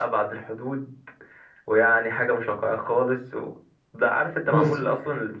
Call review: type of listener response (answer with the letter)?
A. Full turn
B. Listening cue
B